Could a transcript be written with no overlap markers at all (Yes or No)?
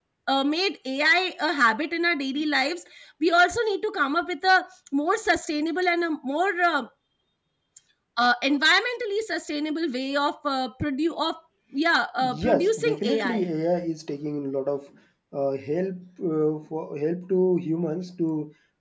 No